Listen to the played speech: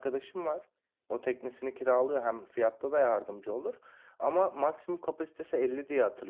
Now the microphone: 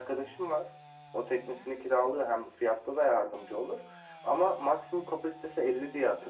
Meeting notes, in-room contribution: none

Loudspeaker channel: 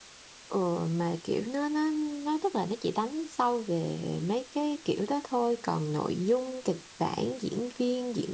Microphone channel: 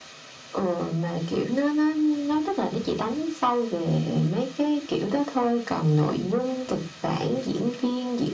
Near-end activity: none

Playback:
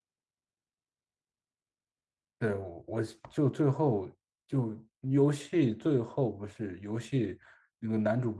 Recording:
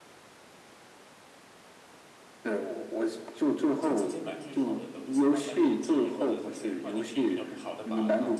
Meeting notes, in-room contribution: present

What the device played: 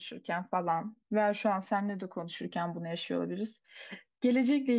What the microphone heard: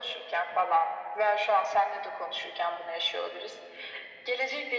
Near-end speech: none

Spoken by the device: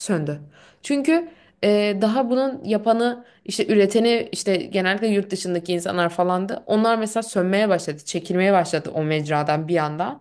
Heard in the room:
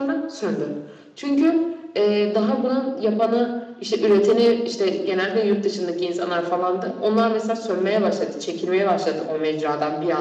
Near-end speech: none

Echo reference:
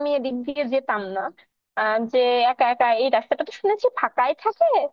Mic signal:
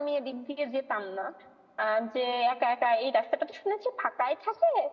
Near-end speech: none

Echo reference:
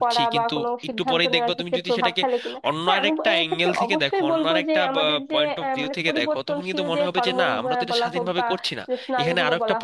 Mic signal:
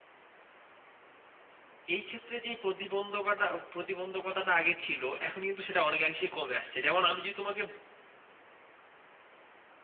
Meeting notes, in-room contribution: present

